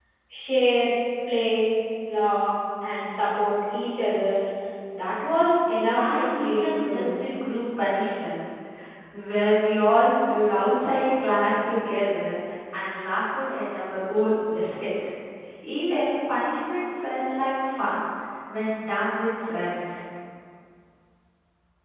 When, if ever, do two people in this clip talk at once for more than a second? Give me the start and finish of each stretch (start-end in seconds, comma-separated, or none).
6.0-7.3